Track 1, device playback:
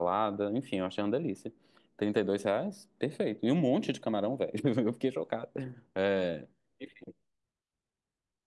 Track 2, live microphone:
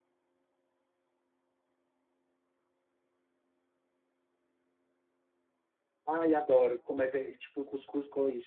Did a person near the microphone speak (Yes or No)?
Yes